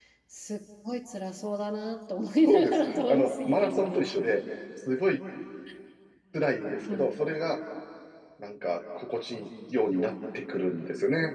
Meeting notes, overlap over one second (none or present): present